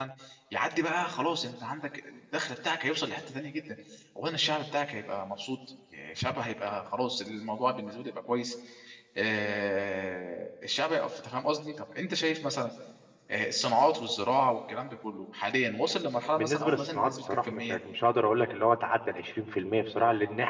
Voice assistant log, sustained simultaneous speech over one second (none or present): present